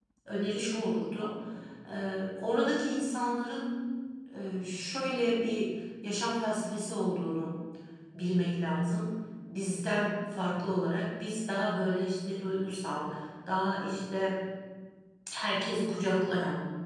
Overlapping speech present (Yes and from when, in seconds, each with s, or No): No